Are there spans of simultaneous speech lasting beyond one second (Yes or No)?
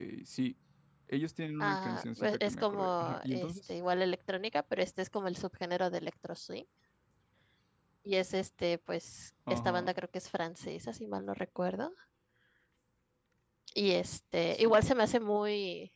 Yes